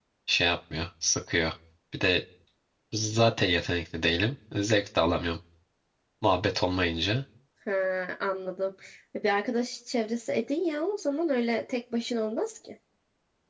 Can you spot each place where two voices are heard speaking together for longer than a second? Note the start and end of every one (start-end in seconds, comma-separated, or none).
none